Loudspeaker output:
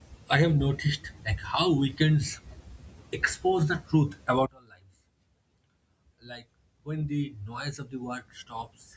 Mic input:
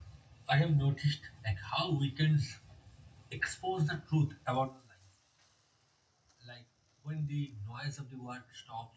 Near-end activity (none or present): none